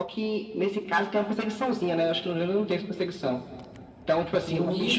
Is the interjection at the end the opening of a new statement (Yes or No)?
Yes